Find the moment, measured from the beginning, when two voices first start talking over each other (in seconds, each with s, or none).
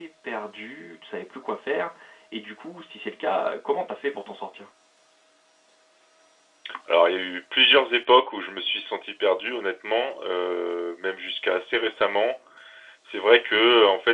none